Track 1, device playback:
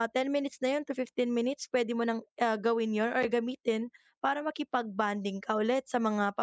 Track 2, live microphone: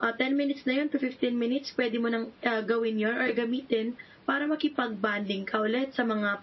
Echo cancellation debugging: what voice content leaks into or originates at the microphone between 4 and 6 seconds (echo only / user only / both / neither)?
echo only